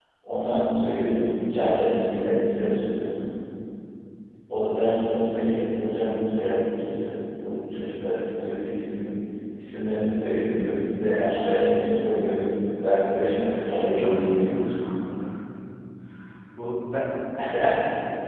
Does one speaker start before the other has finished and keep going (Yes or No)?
Yes